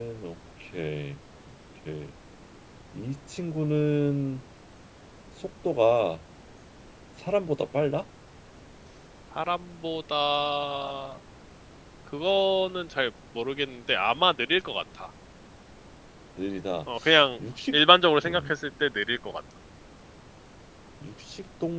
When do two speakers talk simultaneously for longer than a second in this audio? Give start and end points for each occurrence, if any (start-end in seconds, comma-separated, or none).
none